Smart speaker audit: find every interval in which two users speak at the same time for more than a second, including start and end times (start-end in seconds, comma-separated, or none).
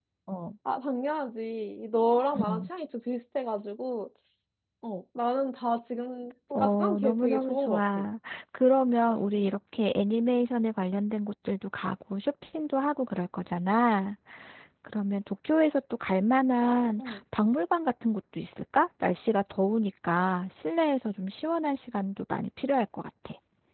6.5-8.0